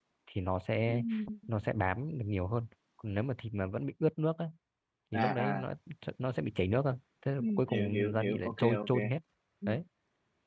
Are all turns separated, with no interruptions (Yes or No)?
No